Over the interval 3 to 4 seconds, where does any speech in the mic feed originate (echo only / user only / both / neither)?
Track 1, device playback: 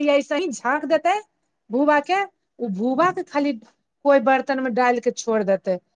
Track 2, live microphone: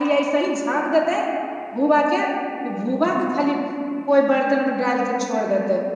echo only